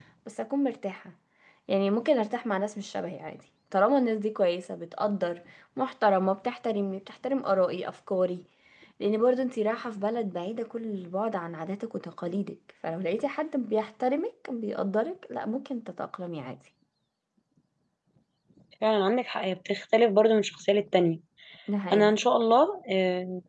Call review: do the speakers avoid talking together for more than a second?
Yes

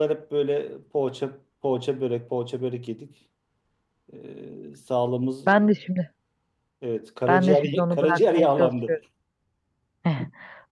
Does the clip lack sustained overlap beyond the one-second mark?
No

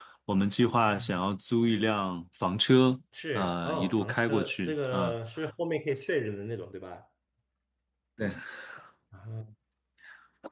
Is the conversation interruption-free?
No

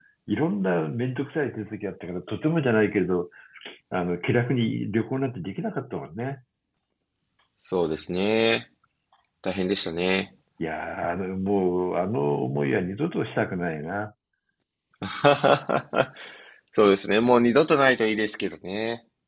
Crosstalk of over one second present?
No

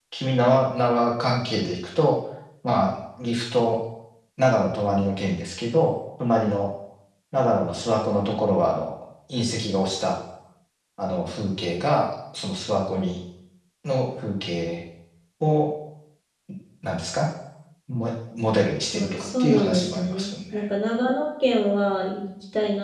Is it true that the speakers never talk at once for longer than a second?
No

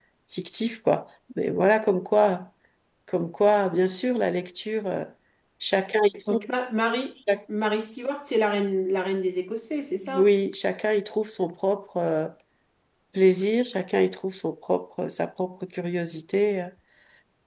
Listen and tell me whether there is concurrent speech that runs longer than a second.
No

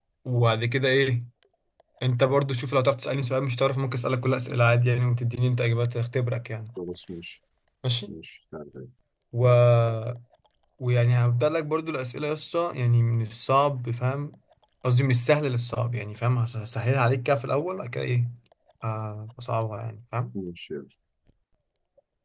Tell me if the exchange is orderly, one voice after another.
Yes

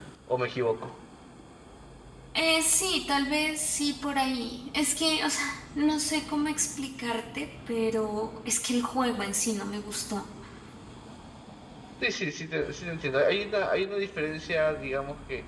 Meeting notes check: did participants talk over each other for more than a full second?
No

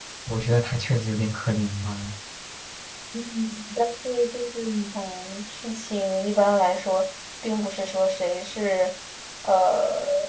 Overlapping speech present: No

